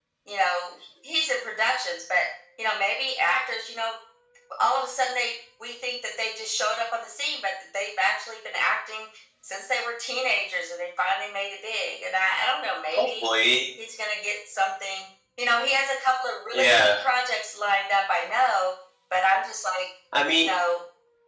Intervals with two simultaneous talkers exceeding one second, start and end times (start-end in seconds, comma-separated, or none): none